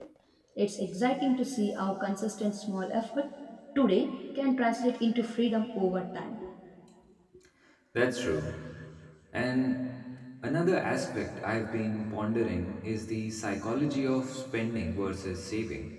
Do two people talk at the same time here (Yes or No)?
No